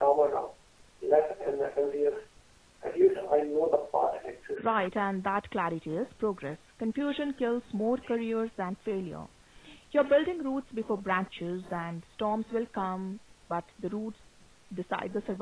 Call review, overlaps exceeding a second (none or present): none